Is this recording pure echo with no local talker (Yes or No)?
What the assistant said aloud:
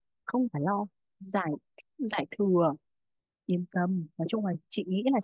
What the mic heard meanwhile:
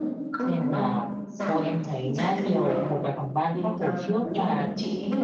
No